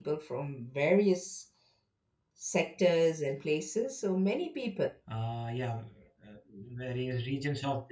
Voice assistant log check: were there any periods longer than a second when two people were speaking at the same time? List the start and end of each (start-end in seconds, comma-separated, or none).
none